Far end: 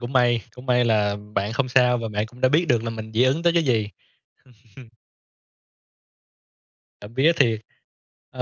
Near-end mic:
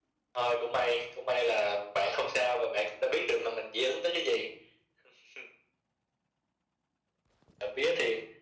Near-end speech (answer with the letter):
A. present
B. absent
B